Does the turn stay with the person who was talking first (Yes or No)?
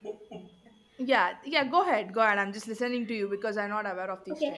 No